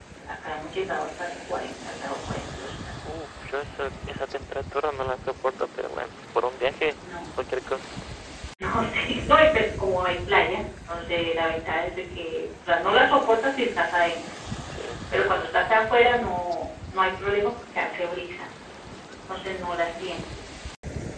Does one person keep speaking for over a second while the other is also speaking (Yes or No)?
No